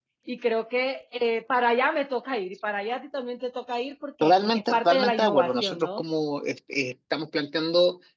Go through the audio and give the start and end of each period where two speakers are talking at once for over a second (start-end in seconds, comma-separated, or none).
4.2-6.0